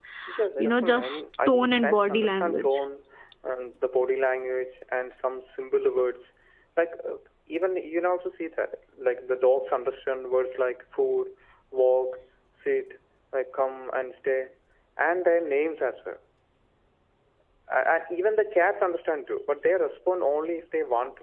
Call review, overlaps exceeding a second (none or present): present